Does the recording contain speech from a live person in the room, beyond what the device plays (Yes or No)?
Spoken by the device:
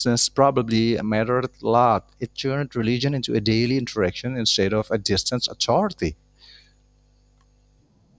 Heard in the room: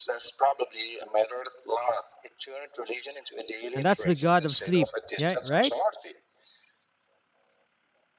Yes